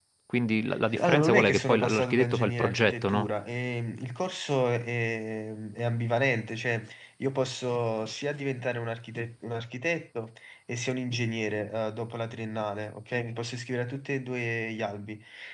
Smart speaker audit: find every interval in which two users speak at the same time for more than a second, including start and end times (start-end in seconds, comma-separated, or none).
1.0-3.3